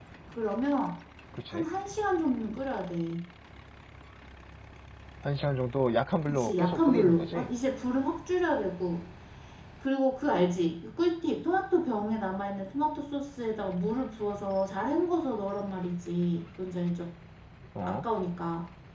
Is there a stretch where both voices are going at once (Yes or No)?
Yes